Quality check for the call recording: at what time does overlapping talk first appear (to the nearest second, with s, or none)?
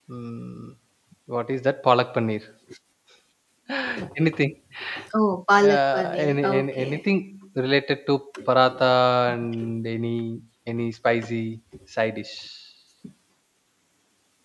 6 s